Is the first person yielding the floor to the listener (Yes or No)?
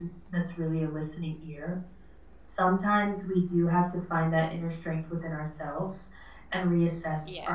No